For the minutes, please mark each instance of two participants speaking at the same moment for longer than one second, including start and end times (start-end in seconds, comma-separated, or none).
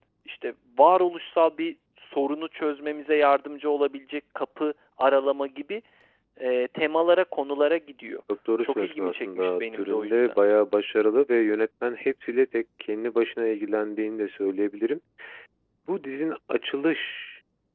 8.6-10.4